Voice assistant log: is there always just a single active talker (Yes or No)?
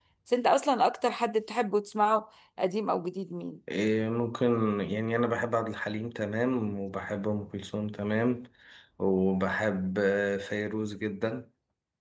Yes